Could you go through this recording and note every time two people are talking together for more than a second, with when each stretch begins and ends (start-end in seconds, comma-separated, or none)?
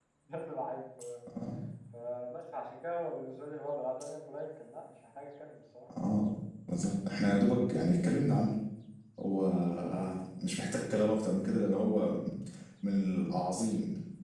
none